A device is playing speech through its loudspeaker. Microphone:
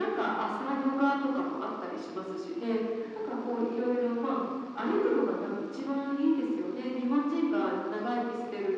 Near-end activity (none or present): none